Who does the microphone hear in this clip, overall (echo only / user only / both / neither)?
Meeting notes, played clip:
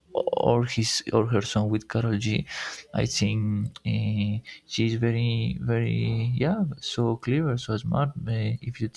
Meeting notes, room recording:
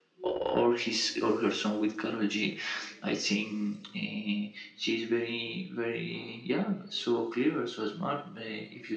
echo only